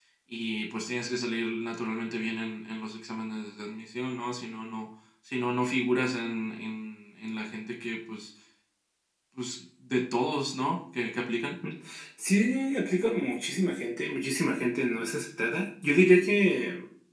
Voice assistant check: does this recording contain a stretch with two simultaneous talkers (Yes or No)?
No